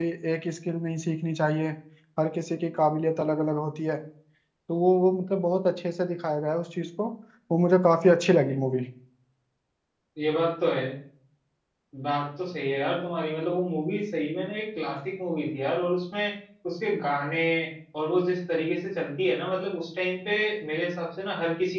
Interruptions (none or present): none